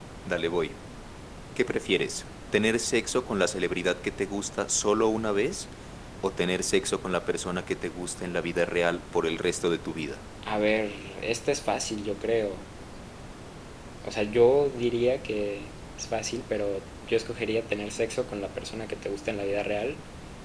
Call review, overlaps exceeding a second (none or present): none